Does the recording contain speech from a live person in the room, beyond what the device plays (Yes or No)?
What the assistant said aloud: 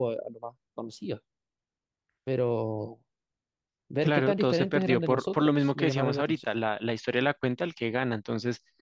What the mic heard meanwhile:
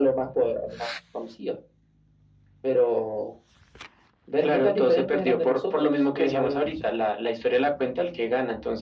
No